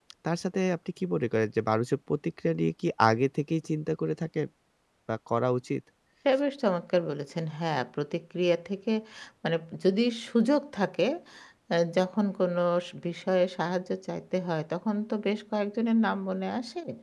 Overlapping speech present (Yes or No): No